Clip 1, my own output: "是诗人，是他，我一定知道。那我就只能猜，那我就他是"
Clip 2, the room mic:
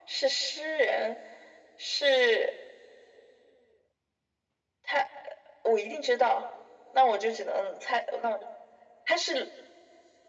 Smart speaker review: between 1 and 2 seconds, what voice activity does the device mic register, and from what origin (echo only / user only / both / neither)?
echo only